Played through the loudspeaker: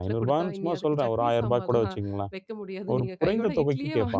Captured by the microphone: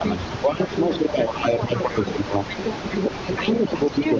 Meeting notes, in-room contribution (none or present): none